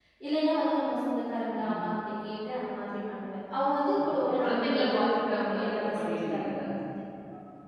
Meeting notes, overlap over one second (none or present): present